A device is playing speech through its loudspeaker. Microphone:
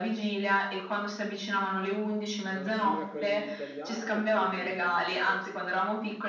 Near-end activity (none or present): present